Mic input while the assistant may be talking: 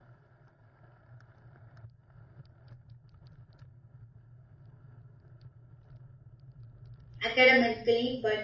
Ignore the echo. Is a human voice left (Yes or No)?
Yes